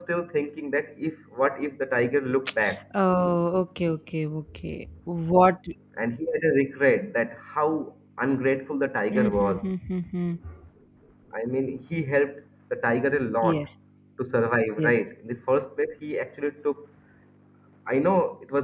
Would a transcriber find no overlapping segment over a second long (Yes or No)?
Yes